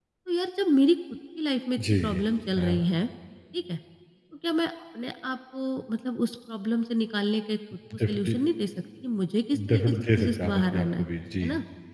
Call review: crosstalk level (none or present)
present